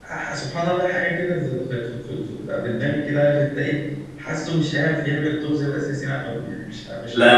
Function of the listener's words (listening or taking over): taking over